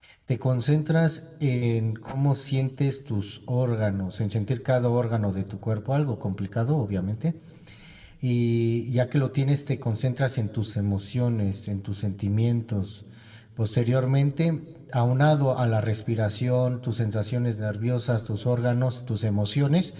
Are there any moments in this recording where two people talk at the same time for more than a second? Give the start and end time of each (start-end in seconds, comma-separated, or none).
none